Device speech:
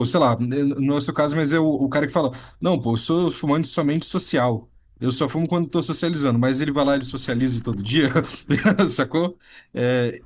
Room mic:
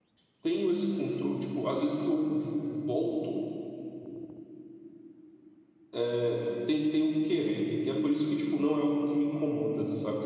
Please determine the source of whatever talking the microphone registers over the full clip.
user only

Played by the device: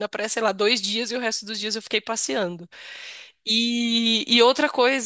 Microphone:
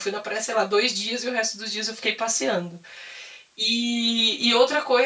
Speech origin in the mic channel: echo only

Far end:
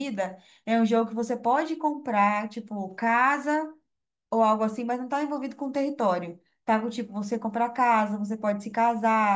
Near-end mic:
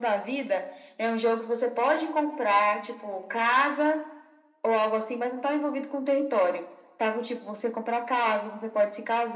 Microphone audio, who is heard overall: echo only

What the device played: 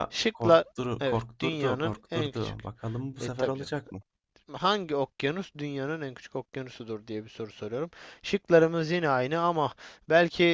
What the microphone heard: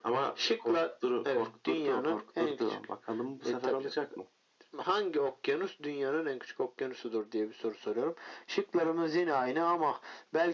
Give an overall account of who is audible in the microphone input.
echo only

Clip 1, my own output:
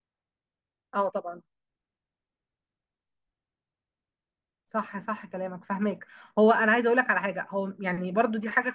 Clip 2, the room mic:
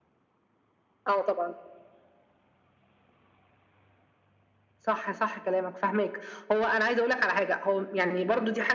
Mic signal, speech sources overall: echo only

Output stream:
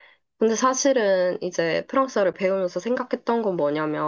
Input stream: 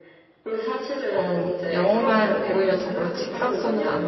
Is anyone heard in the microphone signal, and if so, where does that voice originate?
both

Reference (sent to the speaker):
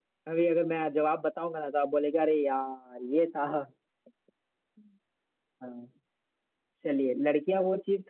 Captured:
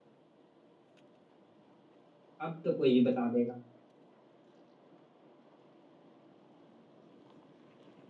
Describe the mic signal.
user only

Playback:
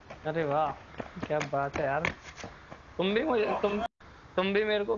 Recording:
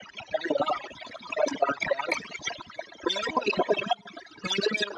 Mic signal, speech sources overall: echo only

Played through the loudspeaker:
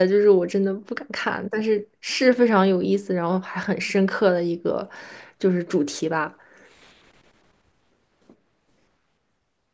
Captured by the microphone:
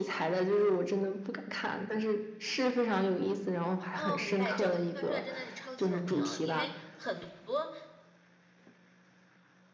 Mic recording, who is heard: both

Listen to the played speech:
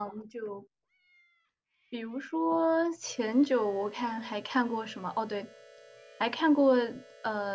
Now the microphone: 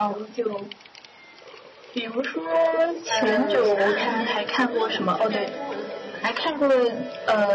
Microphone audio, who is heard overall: both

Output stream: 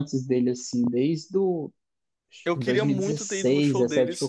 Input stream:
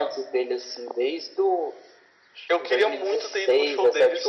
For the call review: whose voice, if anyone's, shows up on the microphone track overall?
echo only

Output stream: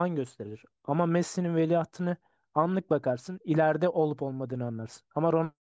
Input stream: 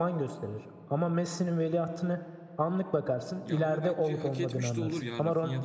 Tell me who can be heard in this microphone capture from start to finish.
both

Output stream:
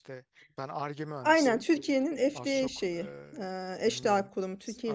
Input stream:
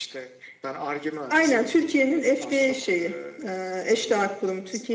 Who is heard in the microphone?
echo only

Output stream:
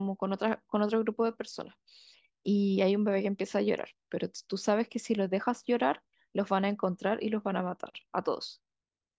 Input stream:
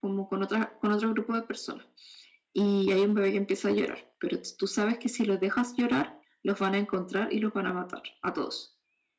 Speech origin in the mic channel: echo only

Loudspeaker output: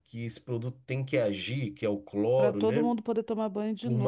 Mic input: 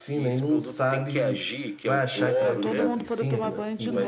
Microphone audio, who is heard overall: both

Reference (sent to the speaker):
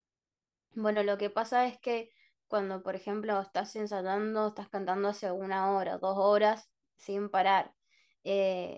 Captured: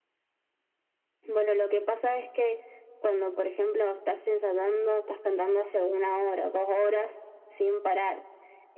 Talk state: echo only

